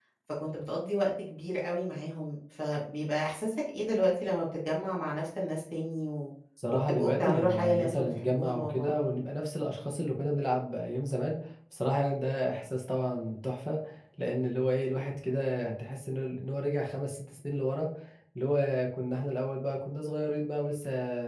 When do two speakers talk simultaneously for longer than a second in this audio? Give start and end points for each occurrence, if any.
6.9-8.9

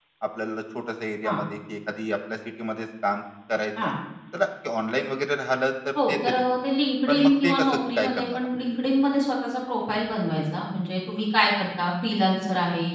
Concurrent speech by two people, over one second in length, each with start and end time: 7.1-8.5

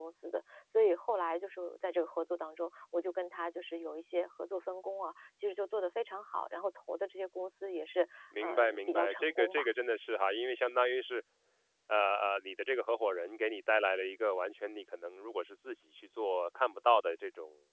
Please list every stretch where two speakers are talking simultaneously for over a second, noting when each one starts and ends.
8.4-9.7

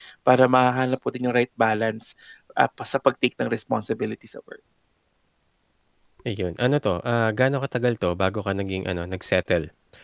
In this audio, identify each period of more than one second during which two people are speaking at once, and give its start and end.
none

